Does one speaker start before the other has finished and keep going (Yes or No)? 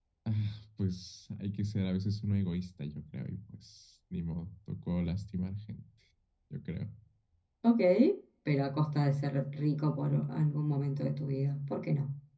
No